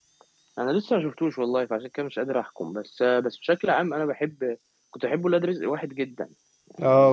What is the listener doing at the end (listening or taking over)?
taking over